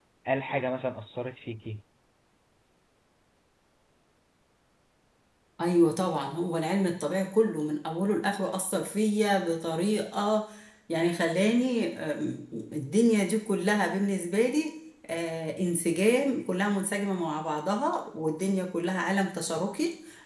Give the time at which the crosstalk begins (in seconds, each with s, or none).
none